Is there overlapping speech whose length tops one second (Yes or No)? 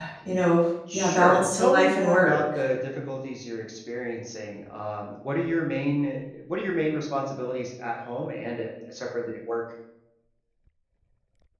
Yes